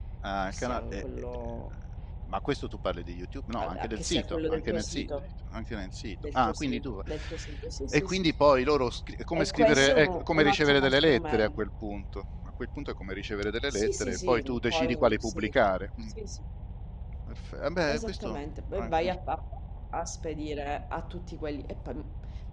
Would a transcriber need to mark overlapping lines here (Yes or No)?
Yes